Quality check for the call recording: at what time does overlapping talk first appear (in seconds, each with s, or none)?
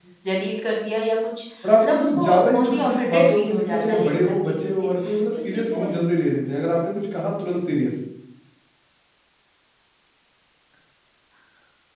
1.8 s